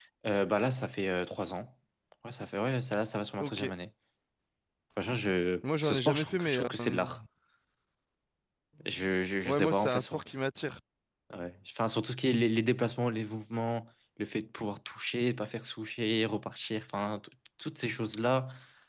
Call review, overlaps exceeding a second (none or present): present